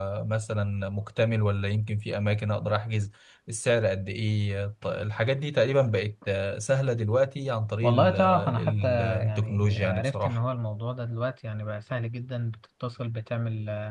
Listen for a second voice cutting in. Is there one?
Yes, from 7.8 s

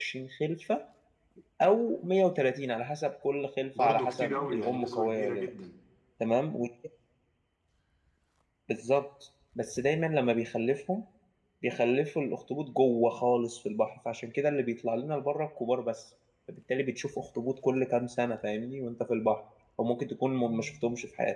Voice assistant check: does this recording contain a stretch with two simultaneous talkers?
Yes, from 3.8 s

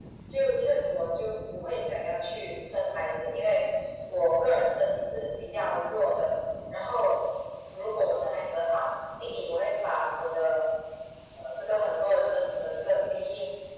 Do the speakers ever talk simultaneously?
No

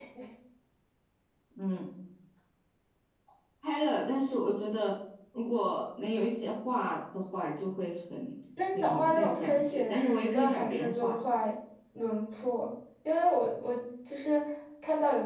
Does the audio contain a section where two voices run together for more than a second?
Yes, from 8.6 s

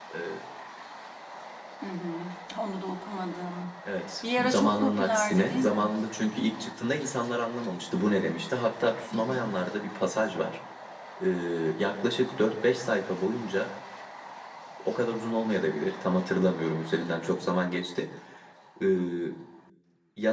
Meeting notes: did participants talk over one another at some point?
Yes, from 4.2 s

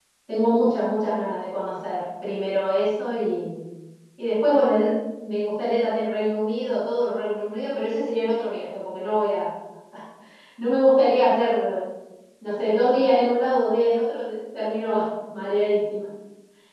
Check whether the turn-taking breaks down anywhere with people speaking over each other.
No

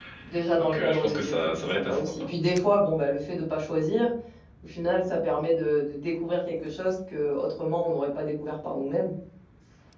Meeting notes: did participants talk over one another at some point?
Yes, from 0.6 s

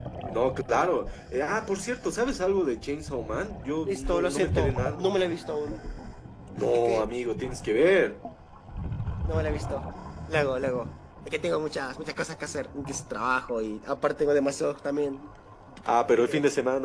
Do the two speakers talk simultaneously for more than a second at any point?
Yes, from 3.9 s

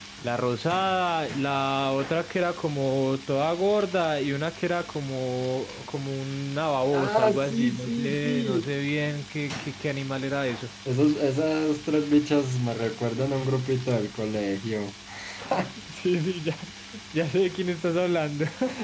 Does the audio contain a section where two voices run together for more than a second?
Yes, from 6.9 s

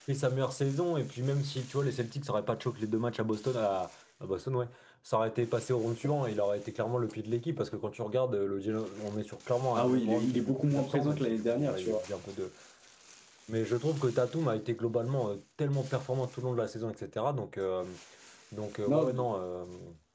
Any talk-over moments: Yes, from 9.7 s

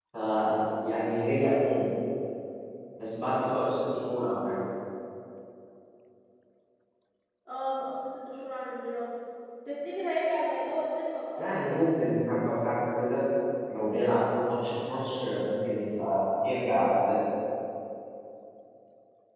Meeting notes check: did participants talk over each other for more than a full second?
No

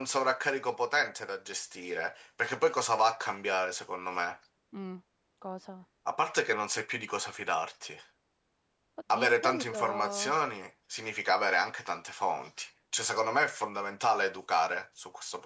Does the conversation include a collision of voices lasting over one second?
Yes, from 9.1 s

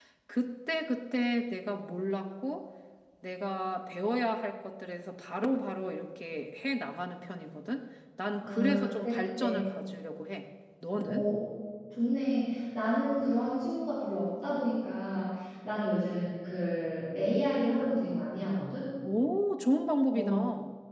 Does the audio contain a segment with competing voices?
Yes, from 8.4 s

